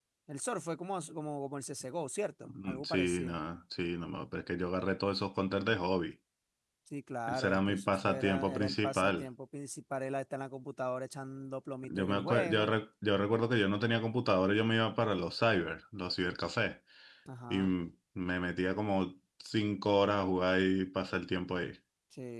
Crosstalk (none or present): present